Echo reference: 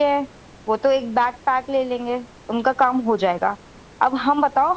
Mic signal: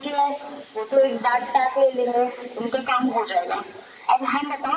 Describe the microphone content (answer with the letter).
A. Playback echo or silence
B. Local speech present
A